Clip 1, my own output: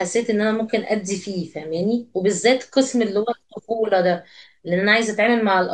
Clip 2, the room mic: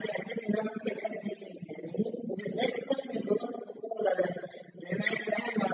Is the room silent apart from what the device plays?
Yes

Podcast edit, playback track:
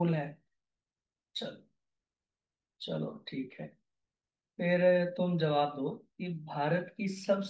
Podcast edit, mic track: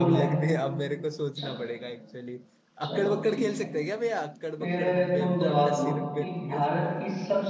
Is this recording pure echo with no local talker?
No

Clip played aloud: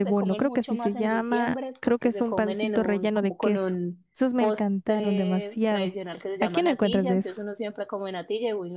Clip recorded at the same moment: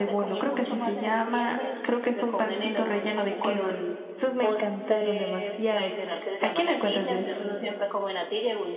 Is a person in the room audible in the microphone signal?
No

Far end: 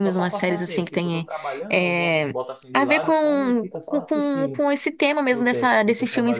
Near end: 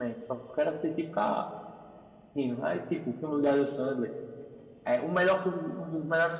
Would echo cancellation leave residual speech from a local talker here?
Yes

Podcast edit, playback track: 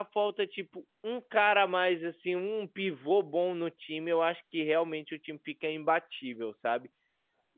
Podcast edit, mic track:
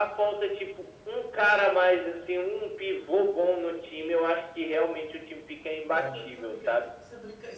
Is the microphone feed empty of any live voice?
No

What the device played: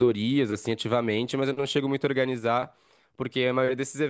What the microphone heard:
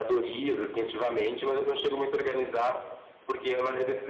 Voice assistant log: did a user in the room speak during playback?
No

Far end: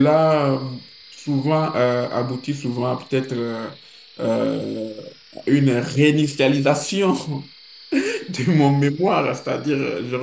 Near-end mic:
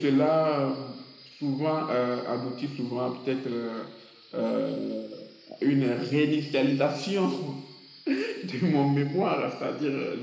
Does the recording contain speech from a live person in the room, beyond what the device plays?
No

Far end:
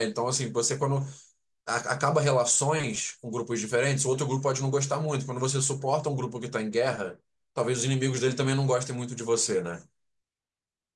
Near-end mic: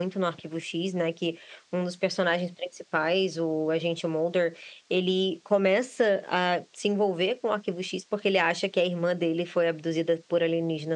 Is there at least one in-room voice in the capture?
Yes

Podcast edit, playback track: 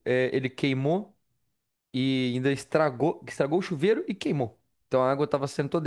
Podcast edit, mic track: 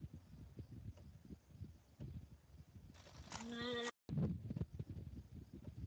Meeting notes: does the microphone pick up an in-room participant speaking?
No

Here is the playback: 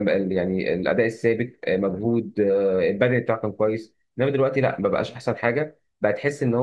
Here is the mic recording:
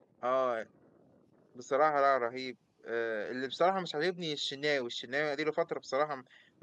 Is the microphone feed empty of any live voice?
No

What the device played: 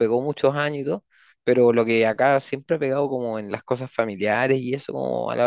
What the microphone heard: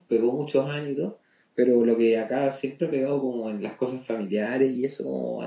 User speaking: No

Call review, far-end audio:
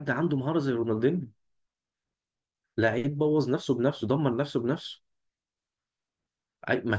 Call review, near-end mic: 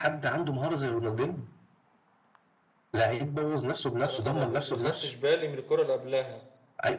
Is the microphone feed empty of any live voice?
No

